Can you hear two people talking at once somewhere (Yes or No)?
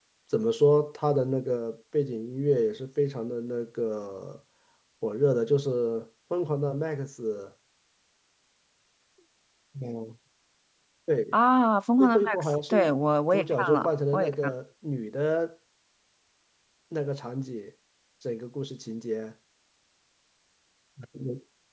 Yes